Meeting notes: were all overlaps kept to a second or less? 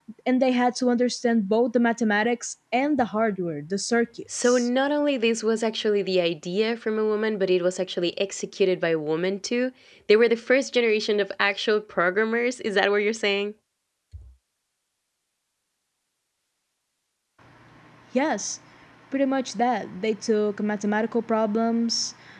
Yes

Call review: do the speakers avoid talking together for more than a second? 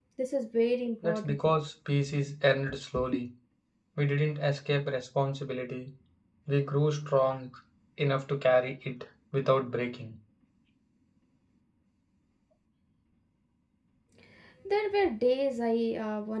Yes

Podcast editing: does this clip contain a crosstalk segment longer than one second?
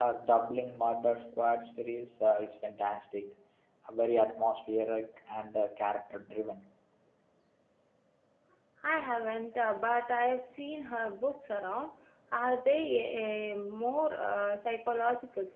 No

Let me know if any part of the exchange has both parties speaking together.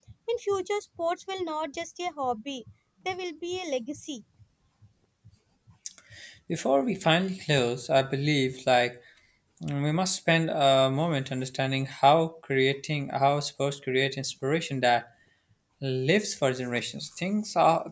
No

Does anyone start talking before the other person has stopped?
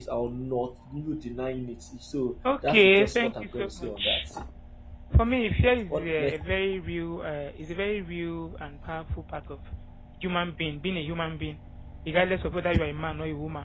Yes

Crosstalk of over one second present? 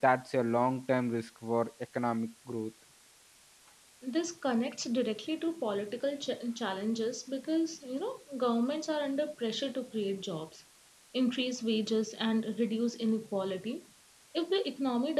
No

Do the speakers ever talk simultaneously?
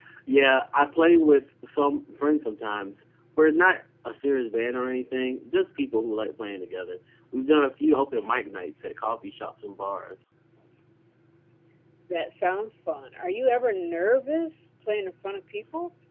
No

